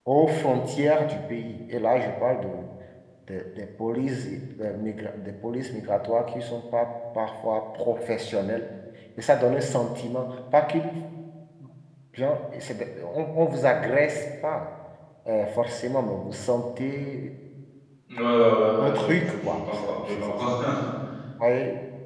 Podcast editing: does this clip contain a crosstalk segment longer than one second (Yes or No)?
Yes